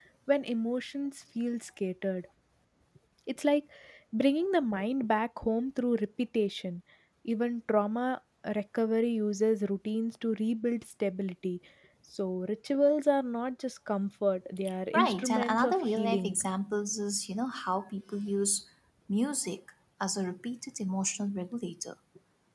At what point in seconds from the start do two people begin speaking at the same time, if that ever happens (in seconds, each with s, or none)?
14.9 s